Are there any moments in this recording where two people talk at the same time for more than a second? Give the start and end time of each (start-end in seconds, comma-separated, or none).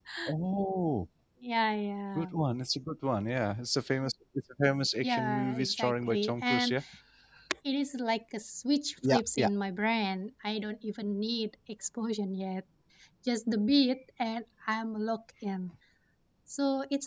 5.0-6.8